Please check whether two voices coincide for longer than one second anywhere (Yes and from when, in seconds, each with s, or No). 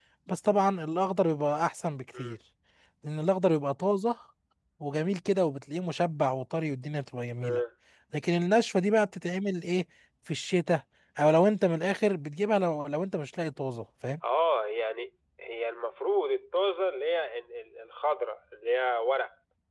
No